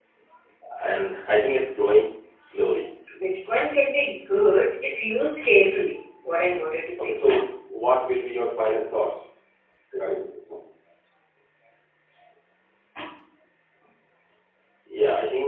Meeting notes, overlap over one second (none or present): none